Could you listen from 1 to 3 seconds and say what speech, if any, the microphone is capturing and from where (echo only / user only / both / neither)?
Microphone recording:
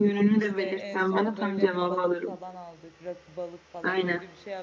both